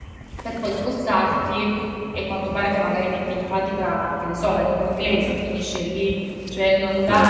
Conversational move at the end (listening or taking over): listening